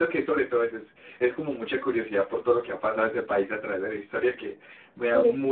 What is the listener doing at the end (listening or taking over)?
listening